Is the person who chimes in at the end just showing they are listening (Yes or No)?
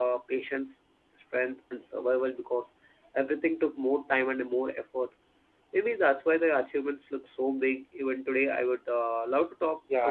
No